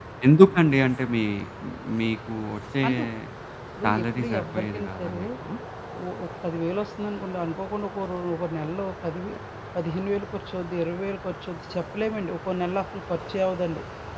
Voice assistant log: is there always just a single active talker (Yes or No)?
No